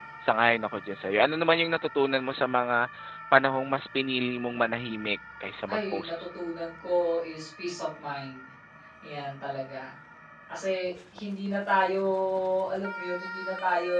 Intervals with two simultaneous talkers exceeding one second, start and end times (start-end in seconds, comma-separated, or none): none